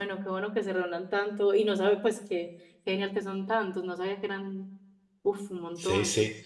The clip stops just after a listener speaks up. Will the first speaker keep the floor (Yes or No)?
No